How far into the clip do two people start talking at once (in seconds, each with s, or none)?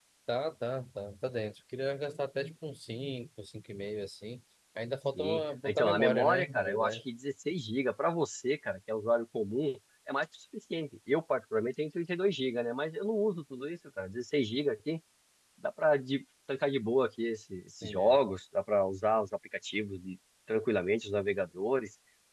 5.2 s